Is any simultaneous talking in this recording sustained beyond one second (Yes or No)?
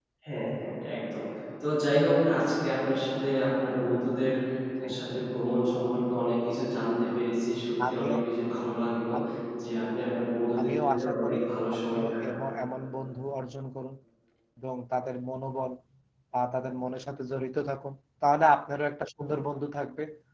Yes